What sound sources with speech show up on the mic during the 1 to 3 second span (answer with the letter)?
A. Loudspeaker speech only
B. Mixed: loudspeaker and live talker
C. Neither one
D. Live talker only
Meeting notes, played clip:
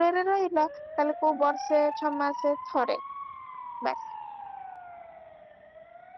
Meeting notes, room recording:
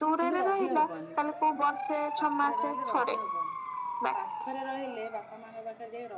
B